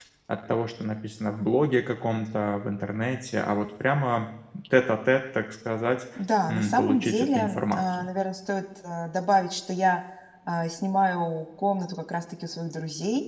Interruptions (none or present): present